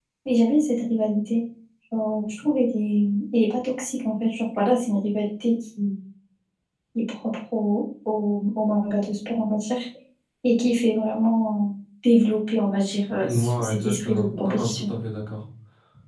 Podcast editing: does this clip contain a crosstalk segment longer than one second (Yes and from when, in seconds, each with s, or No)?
Yes, from 13.2 s